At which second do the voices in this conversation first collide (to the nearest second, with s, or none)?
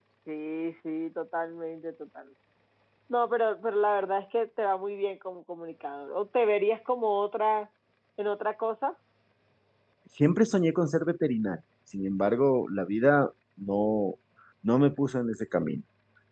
none